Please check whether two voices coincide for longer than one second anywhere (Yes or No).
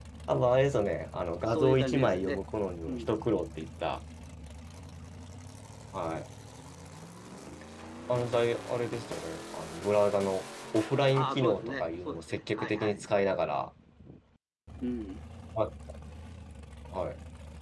Yes